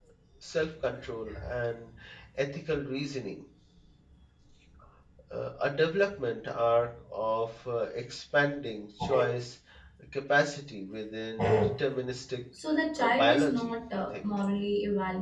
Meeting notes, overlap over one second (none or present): present